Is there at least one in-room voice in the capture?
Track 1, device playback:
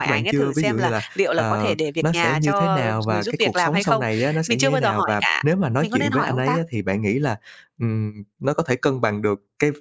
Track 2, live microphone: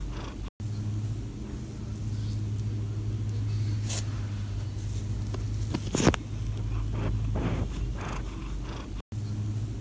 No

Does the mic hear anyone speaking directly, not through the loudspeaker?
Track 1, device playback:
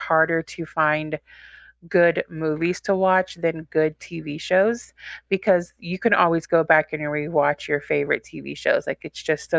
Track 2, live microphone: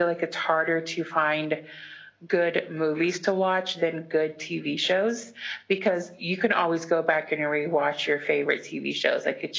No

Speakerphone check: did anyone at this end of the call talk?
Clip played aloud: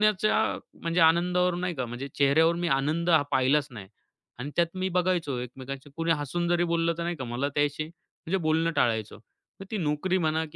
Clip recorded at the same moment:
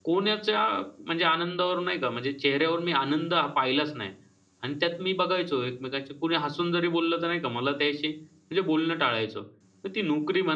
No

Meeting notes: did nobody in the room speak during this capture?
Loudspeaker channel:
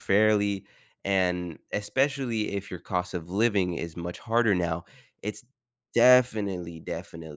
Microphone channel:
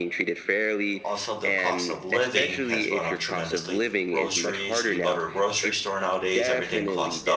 No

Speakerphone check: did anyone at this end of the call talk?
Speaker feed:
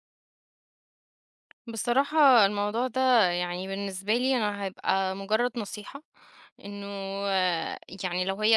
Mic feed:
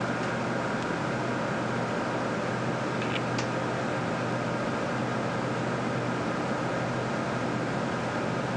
No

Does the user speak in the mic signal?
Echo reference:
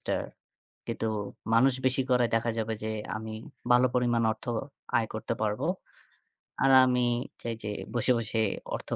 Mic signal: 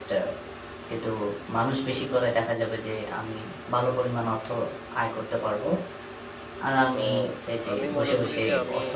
Yes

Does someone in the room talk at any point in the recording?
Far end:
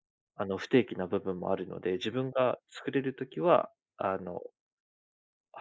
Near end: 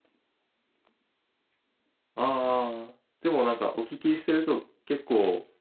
Yes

